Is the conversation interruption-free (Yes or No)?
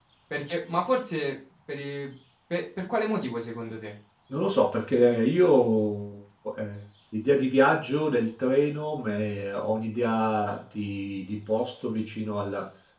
Yes